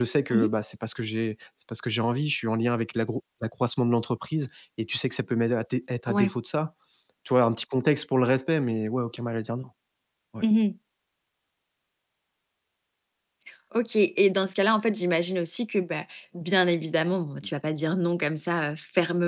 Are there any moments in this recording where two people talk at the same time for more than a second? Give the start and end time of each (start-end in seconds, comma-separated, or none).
none